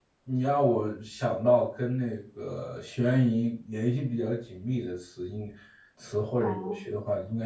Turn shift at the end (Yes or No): No